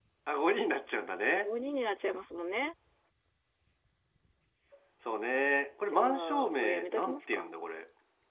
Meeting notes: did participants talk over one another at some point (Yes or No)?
Yes